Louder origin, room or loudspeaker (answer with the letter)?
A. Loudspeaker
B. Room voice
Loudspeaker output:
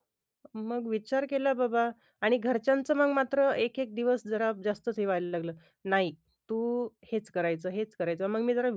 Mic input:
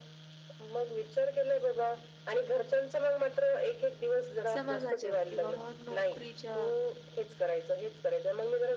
A